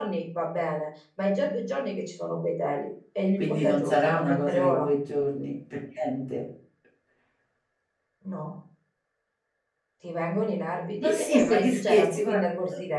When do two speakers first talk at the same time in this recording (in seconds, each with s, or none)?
3.4 s